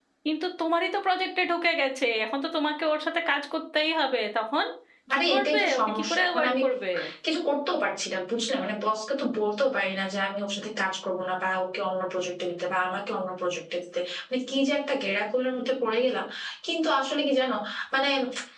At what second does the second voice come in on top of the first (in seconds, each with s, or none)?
5.1 s